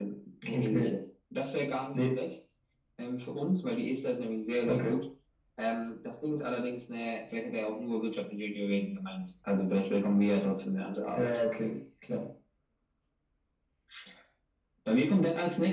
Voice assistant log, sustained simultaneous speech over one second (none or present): none